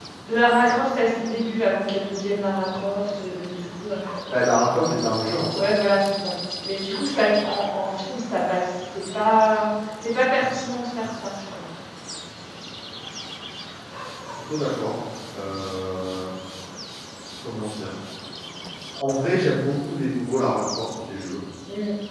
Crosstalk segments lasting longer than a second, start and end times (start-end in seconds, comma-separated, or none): none